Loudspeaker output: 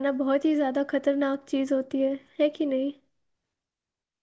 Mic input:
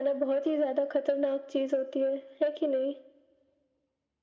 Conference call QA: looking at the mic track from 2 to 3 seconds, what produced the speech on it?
echo only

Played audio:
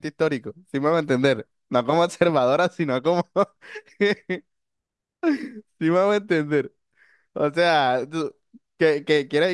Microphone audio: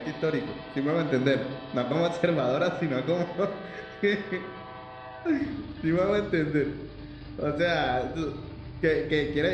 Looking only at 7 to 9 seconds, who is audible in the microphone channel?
echo only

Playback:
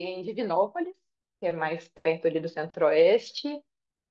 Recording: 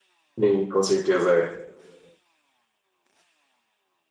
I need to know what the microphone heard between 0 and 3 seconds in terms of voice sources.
user only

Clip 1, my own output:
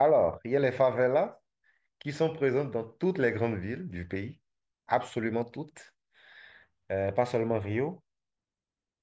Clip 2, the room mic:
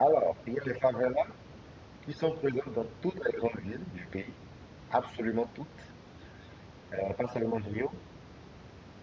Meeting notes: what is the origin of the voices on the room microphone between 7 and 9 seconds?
echo only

